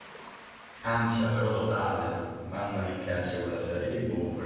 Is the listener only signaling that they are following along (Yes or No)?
No